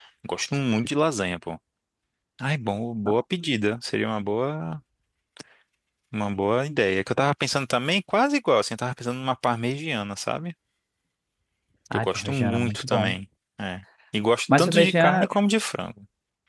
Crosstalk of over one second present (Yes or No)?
Yes